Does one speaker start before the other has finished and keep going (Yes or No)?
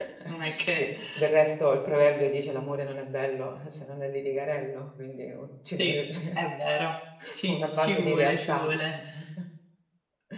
Yes